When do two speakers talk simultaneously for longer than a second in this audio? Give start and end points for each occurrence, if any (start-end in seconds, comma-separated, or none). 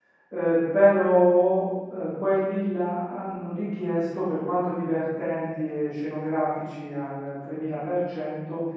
none